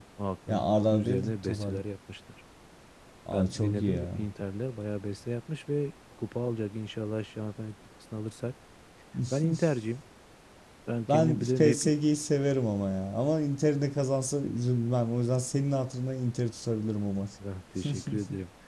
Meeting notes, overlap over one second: present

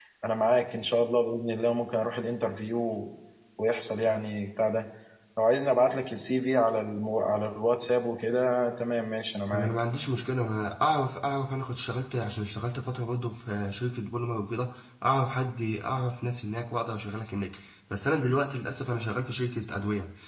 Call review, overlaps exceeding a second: none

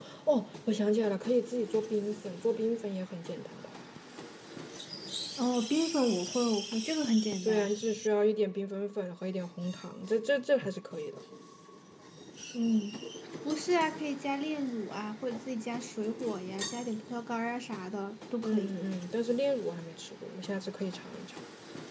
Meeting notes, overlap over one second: none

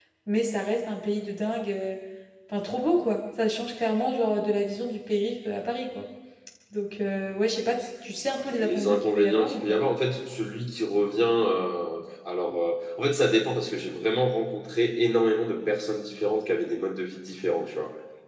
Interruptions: present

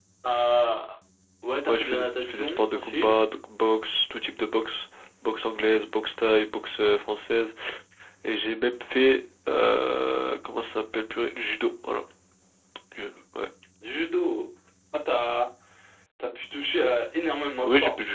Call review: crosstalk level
present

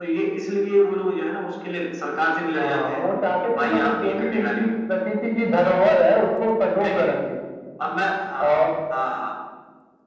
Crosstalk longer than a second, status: present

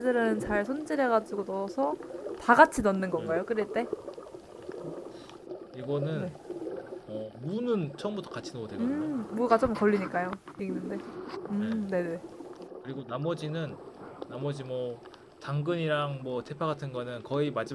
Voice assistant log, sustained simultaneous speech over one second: none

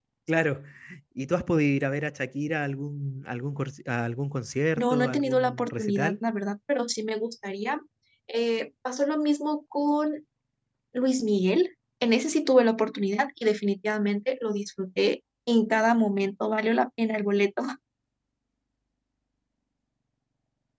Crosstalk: present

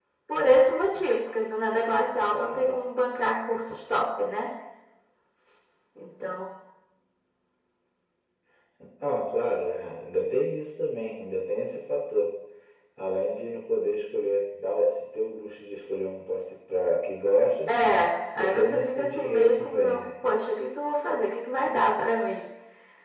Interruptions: present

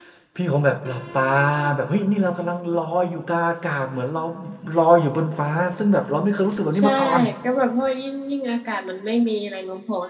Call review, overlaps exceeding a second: none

